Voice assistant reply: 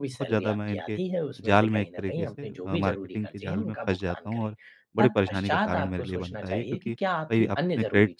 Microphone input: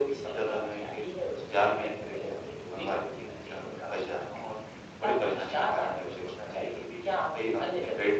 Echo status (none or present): present